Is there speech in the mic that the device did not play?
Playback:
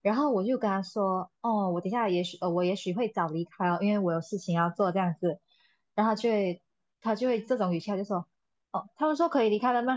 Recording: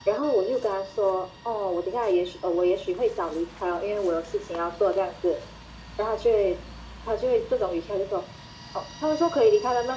No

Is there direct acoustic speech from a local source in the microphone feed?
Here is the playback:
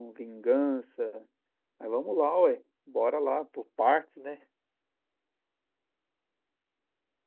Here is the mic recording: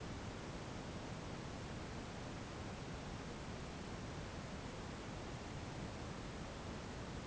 No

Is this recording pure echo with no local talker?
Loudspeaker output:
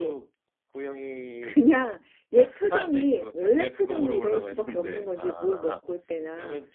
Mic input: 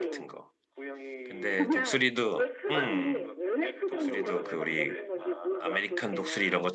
No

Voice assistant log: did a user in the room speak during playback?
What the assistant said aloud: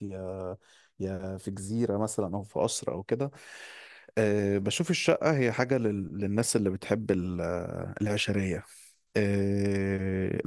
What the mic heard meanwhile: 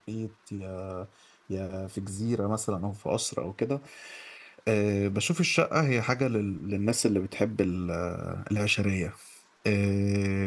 No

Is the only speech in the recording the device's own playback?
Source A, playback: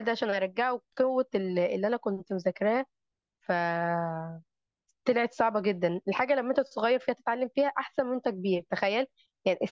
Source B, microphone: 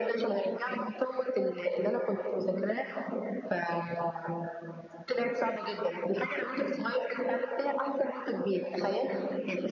Yes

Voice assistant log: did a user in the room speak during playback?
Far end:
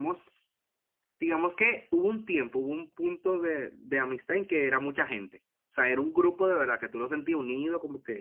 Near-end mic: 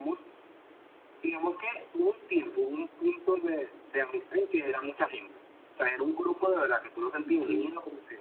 Yes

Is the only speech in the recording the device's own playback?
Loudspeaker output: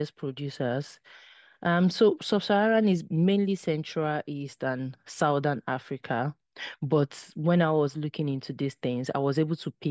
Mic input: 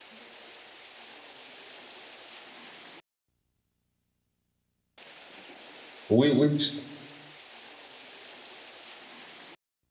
No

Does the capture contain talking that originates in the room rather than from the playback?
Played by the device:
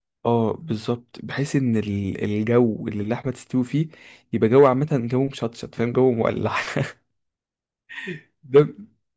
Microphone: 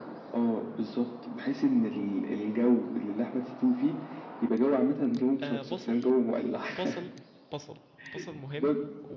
Yes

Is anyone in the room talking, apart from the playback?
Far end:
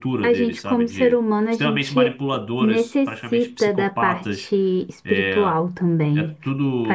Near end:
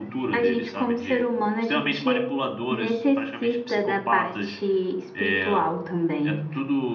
No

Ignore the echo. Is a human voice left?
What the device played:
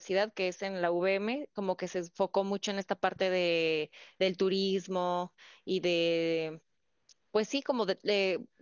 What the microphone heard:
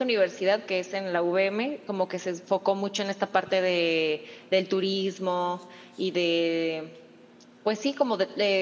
No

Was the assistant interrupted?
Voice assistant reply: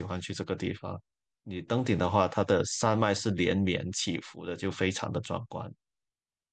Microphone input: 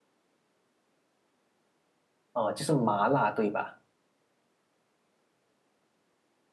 Yes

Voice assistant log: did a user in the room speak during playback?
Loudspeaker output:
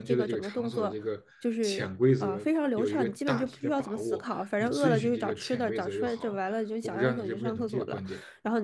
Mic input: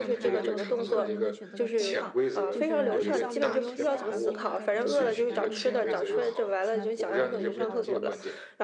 Yes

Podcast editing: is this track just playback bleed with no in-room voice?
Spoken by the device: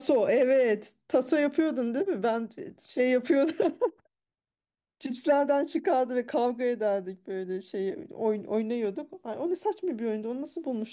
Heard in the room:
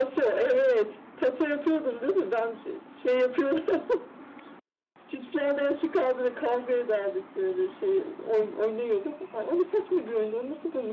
Yes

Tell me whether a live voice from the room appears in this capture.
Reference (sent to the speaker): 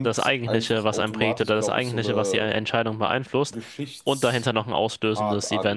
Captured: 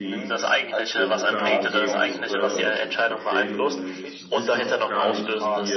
Yes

